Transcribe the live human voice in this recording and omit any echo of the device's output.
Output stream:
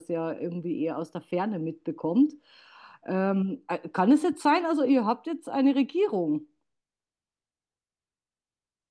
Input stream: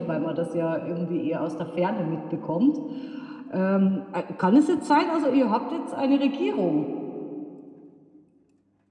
none

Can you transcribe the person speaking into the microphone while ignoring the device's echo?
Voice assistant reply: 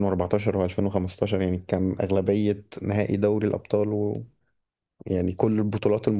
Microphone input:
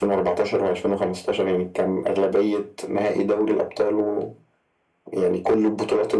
none

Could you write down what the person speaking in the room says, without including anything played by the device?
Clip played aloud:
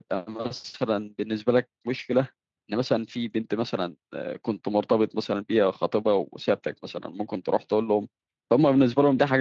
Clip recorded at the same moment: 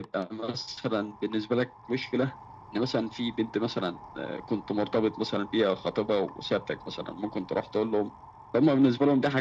none

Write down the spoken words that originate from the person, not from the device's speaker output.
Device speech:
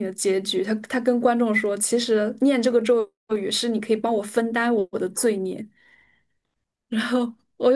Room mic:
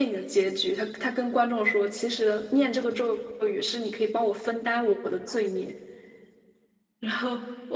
none

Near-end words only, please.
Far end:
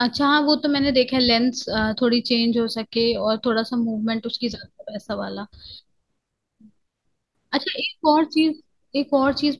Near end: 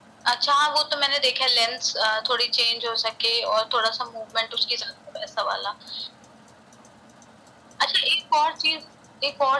none

